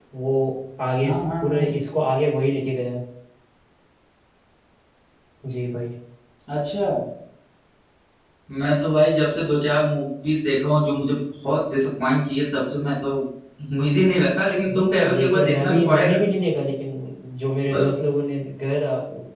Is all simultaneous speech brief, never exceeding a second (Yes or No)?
No